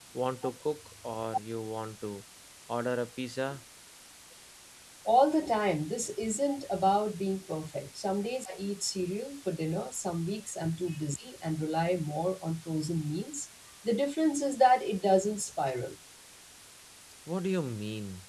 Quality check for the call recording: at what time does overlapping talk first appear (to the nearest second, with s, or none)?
none